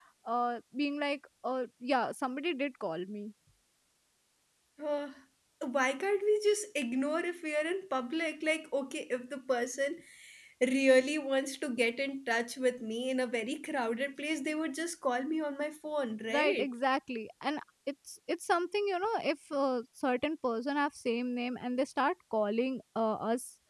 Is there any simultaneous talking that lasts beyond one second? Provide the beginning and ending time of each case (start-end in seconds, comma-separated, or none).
none